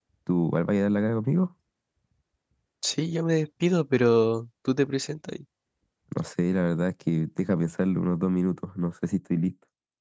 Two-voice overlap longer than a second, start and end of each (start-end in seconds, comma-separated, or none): none